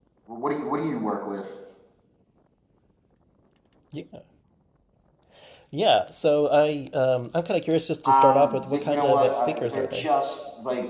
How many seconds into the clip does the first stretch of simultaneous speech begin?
8.1 s

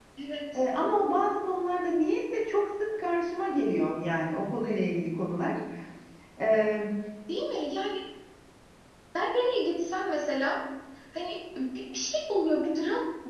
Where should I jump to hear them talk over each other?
none

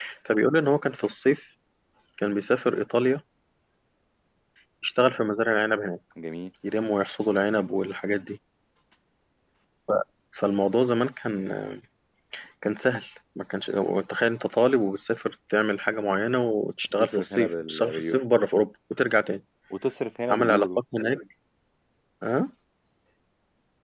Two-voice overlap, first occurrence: 16.9 s

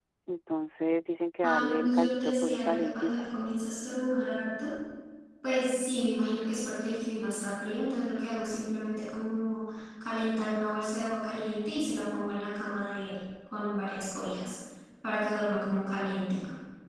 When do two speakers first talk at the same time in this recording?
1.4 s

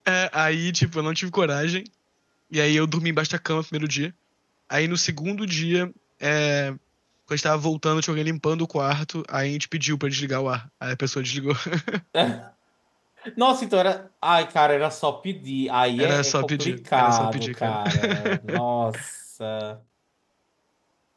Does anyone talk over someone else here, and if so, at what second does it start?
16.0 s

